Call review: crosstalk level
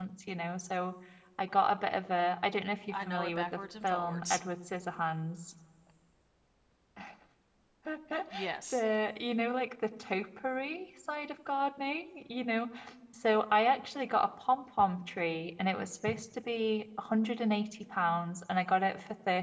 present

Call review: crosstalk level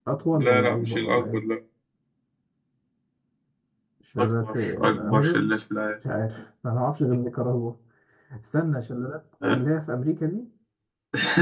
present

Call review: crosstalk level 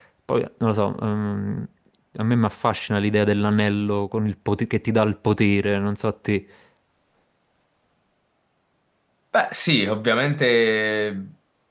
none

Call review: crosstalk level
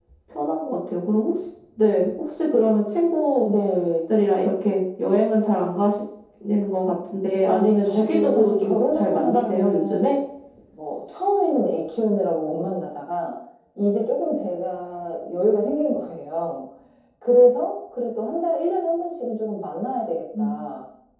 present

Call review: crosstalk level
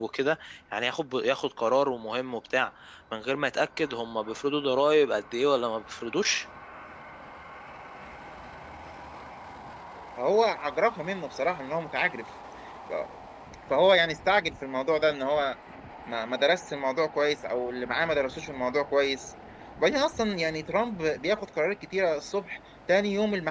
none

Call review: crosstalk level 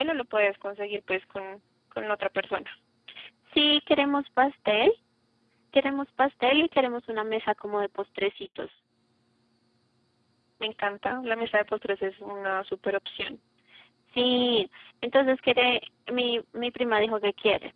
none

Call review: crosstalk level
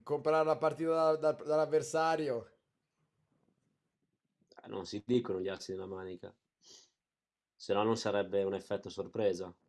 none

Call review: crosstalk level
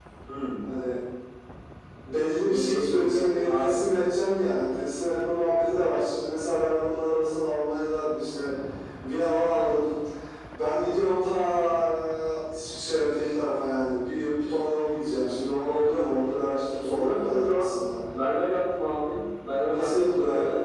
present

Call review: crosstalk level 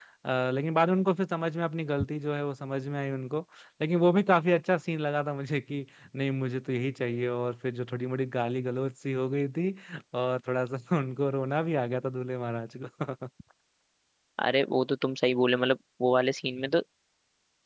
none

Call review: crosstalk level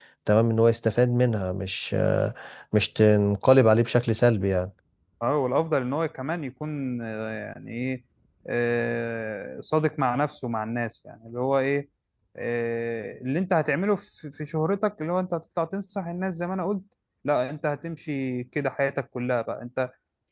none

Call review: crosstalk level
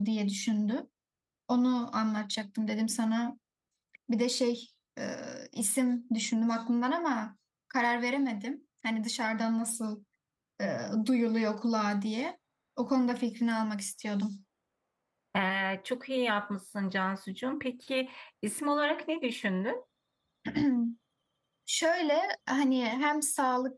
none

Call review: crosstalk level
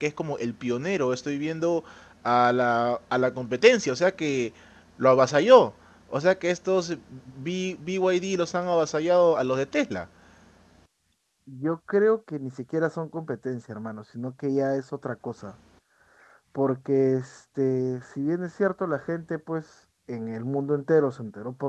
none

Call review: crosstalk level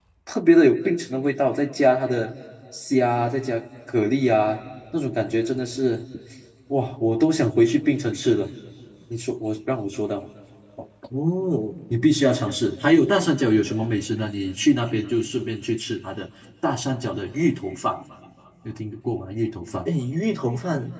none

